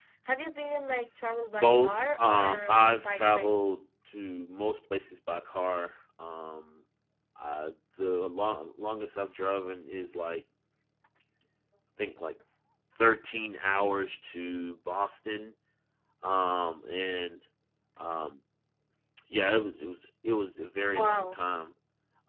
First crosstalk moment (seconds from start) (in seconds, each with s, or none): 1.5 s